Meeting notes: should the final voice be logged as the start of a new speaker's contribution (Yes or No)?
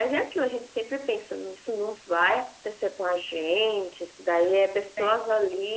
No